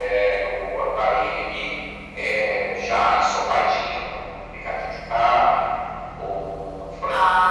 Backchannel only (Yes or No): Yes